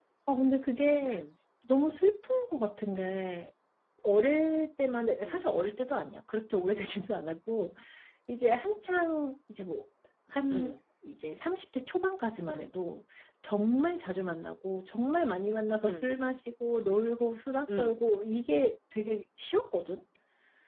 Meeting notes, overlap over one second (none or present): none